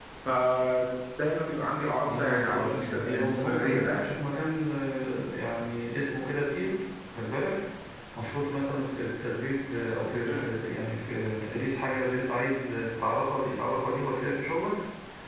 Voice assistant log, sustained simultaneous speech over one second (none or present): present